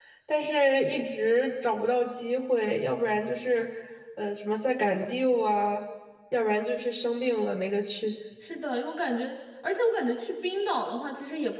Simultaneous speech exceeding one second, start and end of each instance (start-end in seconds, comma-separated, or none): none